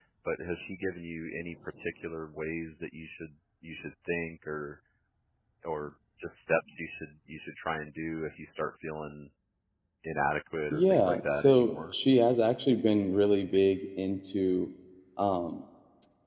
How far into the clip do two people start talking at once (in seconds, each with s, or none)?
10.7 s